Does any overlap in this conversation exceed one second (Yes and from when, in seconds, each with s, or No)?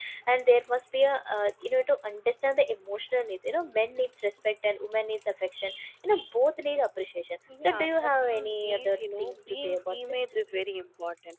Yes, from 7.5 s